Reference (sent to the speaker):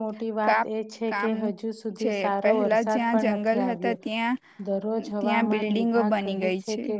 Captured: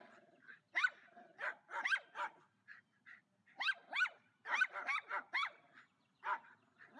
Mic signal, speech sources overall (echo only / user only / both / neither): neither